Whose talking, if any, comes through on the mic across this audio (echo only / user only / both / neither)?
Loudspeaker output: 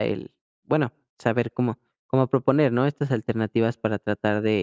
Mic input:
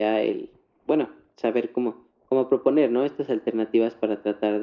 echo only